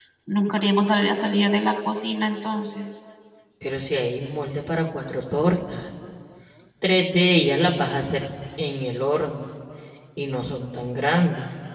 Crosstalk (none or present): none